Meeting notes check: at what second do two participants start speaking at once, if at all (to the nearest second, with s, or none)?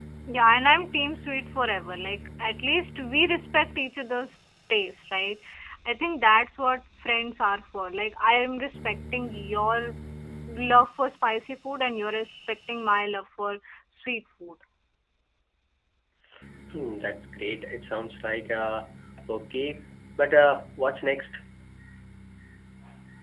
none